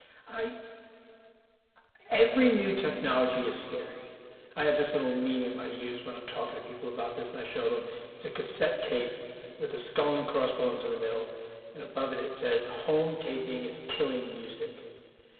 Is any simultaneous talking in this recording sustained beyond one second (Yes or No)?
No